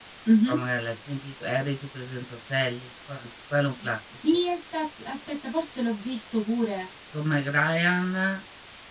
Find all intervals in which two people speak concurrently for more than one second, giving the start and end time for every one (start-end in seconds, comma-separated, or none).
none